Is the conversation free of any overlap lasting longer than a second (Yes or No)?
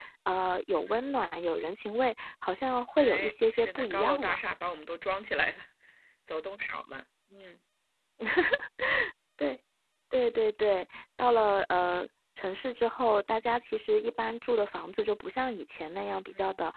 No